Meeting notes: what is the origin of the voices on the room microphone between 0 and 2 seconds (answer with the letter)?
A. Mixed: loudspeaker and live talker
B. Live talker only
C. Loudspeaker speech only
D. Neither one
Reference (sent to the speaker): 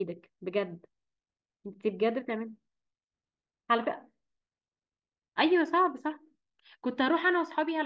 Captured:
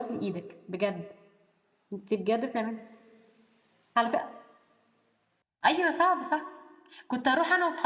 C